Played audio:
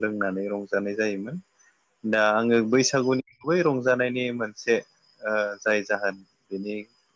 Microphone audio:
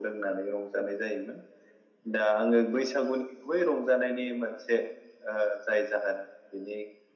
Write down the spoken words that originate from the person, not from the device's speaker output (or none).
none